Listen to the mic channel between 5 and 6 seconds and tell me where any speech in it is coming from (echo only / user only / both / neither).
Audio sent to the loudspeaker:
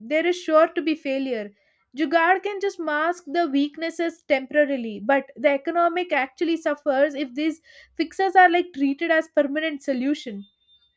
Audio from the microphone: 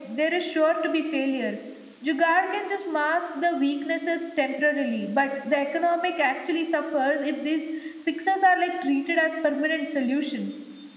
echo only